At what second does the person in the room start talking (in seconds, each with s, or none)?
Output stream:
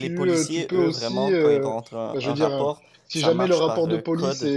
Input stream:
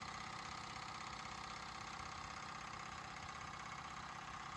none